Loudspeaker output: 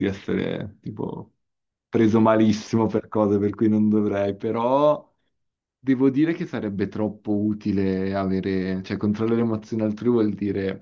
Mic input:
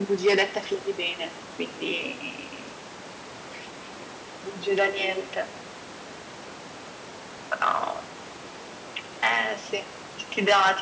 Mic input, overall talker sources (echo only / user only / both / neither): user only